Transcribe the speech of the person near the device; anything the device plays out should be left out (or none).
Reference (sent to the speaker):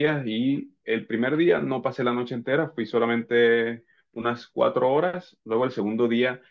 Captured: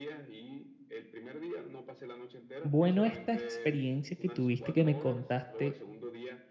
bueno, esta experiencia que tuviste que me contaste